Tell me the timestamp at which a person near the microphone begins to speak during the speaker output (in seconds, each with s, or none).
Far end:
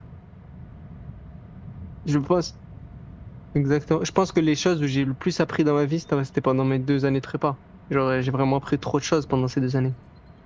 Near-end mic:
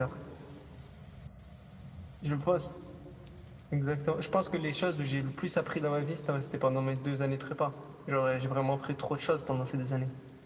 none